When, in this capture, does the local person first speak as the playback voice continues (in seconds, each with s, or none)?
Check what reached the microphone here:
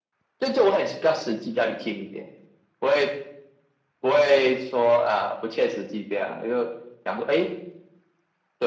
none